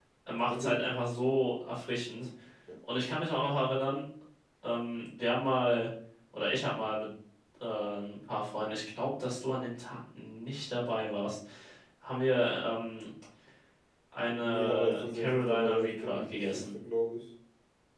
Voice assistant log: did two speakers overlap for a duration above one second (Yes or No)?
Yes